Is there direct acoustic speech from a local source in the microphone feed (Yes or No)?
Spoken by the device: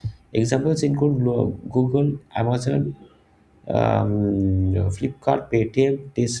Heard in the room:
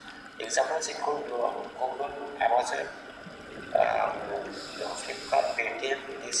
No